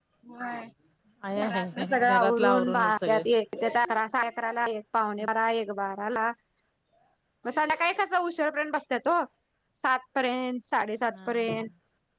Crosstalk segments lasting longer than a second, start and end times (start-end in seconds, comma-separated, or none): 1.4-3.2